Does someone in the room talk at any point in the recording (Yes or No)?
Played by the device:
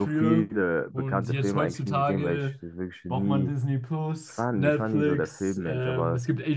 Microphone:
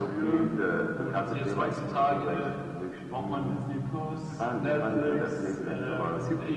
No